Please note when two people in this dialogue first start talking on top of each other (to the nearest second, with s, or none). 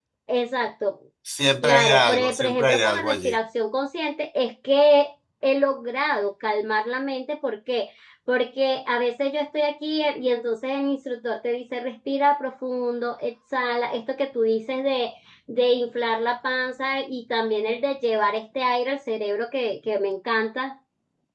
2 s